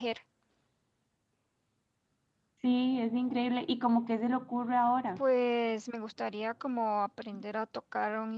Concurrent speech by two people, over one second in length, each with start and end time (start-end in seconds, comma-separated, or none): none